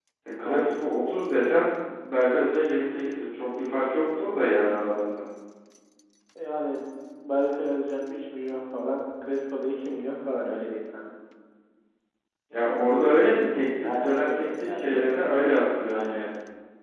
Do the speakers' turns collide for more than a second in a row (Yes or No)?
Yes